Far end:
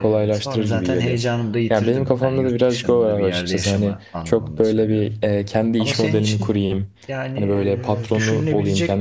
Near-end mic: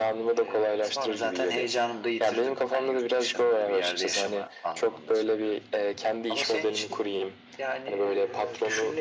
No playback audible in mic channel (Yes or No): No